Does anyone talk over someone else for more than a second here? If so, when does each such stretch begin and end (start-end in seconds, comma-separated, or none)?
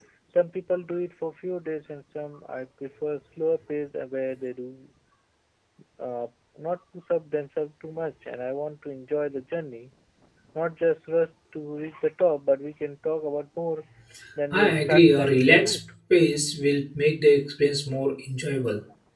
14.5-15.9